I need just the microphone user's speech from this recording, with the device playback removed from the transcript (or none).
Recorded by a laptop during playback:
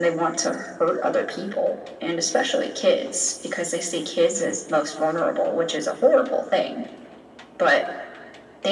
none